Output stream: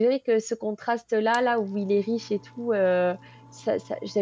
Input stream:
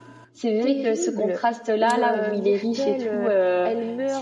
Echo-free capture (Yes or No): No